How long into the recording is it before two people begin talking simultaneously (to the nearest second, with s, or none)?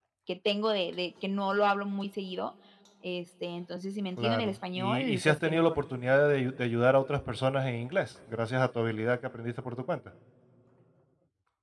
4 s